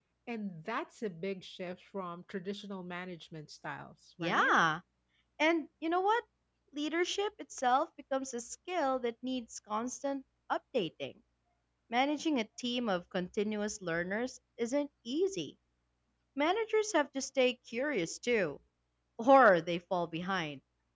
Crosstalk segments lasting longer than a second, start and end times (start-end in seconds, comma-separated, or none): none